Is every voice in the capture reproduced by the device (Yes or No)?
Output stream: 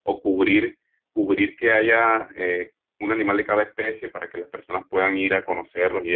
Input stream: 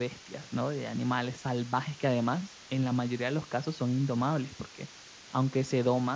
No